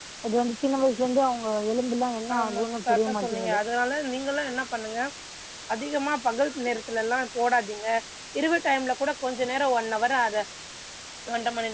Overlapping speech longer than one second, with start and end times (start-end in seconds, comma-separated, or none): 2.4-3.6